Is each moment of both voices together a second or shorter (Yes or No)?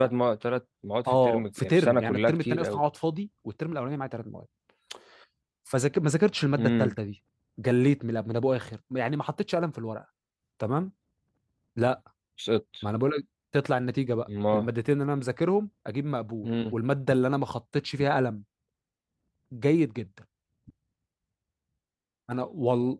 No